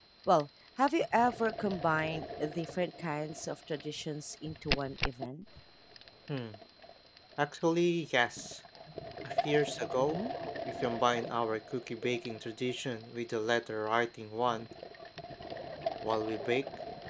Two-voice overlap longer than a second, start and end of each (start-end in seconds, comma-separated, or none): none